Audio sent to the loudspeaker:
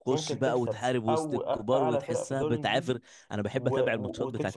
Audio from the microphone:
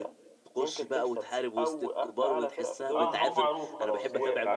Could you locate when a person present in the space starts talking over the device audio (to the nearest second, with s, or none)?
3 s